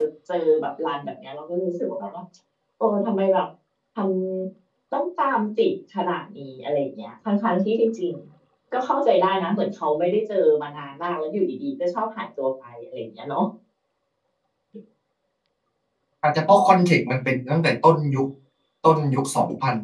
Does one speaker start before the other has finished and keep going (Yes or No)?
No